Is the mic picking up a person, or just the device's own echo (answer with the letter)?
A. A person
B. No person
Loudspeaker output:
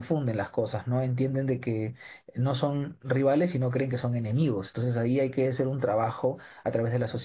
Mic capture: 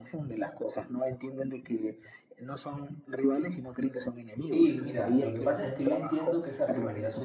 A